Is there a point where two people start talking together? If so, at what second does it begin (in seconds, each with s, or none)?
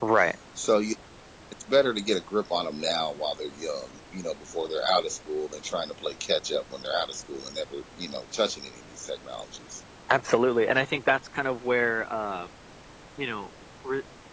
none